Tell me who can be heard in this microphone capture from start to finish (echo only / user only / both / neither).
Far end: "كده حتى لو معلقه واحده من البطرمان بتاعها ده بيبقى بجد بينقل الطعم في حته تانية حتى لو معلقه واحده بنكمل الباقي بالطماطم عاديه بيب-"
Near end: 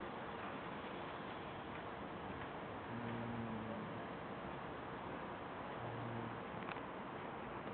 neither